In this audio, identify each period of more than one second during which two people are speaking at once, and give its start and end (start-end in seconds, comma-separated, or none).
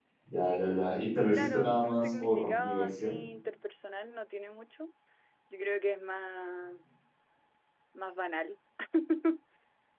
1.3-3.1